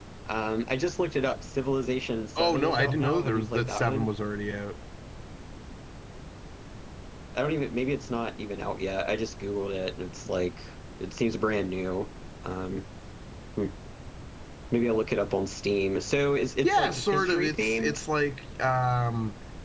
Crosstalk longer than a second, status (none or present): present